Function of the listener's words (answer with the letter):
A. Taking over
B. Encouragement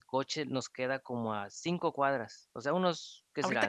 A